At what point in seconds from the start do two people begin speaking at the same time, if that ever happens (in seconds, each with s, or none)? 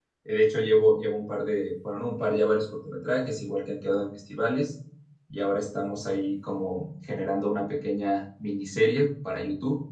none